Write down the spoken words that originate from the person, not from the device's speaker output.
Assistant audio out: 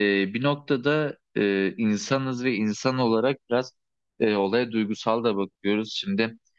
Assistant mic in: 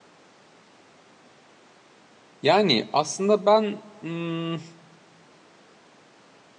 Yani aslında ben hmm,

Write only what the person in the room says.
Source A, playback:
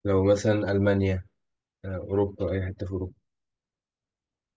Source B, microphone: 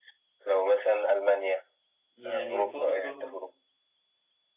يعني فكر في

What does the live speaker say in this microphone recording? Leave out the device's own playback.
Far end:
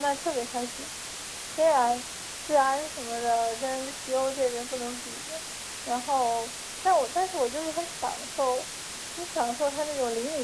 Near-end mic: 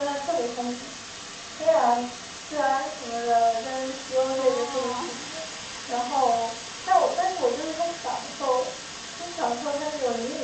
哦，

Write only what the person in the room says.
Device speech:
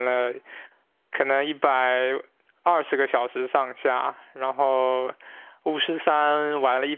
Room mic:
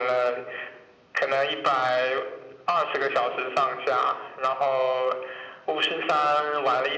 none

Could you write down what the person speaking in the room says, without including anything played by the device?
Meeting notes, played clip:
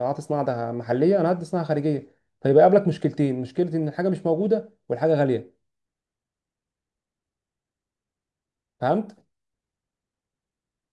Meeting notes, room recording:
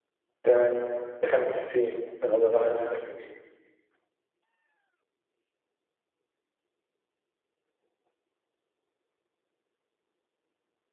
تمام بخمسين انا بقى 50

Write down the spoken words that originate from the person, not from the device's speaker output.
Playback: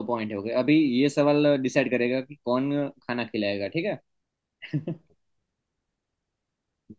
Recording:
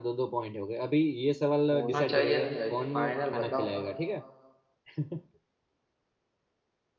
होना चाहिए नहीं भाई फाइनल बताओ

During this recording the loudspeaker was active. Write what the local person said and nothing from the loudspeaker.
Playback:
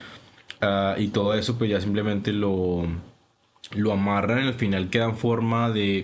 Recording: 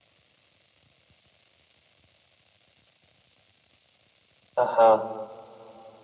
Ajá,

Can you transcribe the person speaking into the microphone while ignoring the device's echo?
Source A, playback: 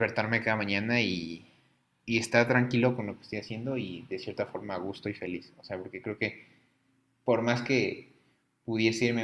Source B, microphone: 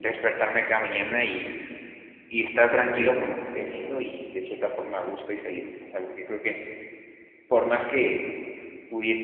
pero

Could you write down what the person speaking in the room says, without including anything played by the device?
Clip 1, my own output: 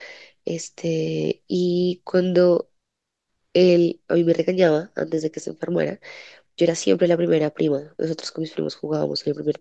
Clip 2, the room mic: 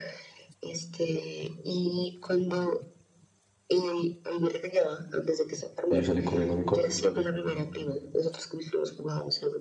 Y yo salí corriendo a mi cuarto.

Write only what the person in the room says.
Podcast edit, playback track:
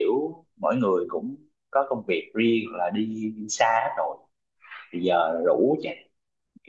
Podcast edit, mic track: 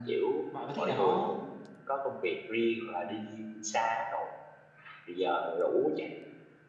bạn có thích đá bóng không

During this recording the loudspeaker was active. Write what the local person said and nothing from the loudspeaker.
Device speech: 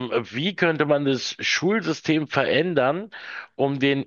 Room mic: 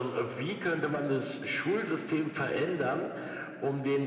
none

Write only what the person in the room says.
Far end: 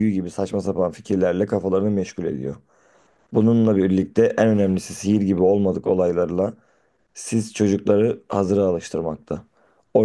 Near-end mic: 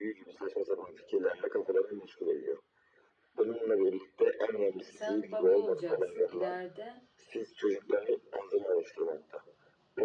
Sen baba olacaksın. İleride

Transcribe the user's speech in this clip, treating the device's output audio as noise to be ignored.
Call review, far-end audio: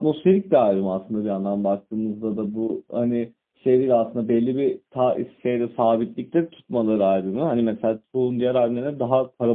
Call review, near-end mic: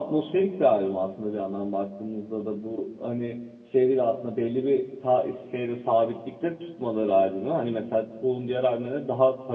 none

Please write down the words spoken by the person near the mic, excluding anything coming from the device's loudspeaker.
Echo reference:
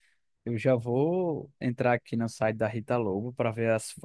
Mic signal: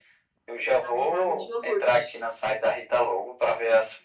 A marinada de iogurte.

